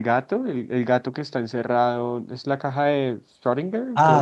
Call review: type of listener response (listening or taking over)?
taking over